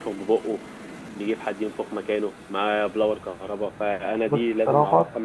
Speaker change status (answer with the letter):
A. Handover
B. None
B